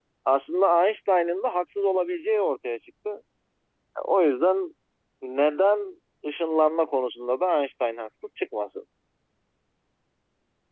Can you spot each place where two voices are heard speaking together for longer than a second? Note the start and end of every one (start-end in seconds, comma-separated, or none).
none